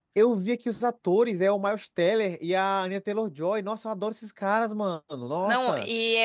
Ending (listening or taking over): taking over